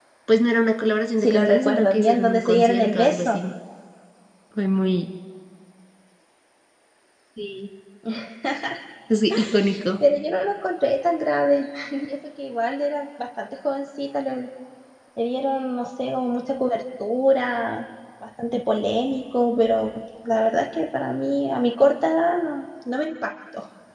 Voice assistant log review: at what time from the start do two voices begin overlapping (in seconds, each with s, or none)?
1.2 s